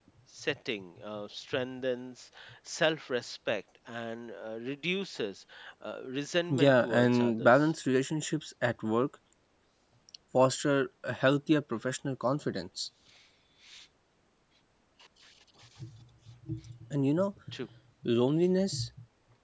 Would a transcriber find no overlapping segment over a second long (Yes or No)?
No